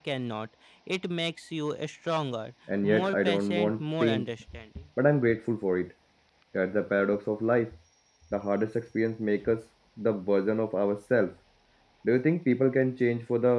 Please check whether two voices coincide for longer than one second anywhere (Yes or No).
Yes